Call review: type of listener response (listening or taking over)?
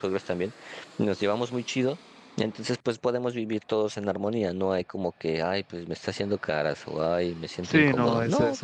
taking over